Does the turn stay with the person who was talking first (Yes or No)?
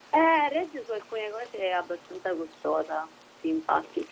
Yes